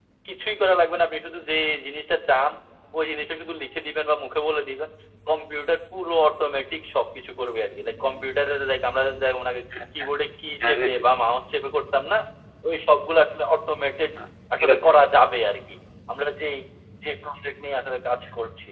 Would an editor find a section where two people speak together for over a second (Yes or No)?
No